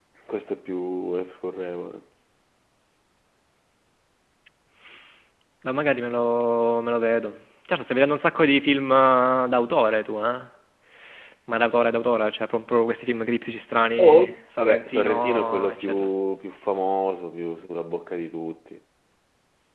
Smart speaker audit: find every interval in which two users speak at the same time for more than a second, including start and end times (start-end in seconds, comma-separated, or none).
14.0-16.1